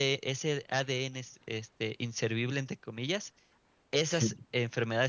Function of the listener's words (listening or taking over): listening